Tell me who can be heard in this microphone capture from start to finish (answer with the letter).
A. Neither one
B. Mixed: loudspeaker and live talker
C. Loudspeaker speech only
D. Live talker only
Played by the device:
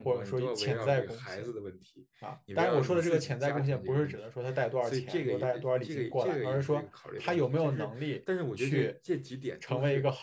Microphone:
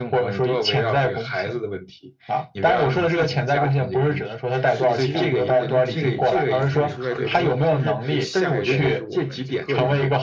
B